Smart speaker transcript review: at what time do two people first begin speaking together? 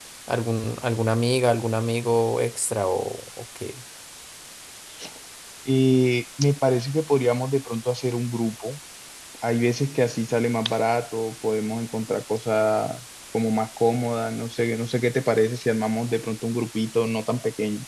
none

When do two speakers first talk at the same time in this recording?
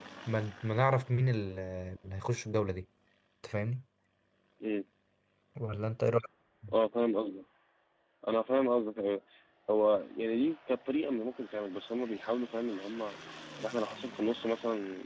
none

